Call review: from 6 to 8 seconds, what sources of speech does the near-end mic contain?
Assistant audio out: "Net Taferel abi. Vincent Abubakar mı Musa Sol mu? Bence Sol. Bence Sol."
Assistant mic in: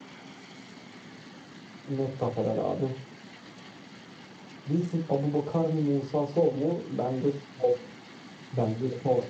echo only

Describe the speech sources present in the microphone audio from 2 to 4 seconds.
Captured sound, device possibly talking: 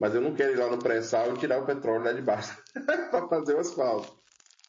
echo only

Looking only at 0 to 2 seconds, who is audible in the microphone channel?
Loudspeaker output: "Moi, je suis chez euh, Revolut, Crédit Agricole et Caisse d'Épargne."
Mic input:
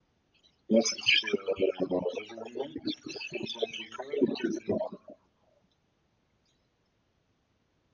echo only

